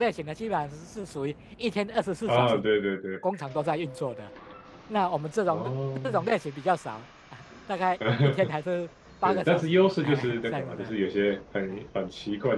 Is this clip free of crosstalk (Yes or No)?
No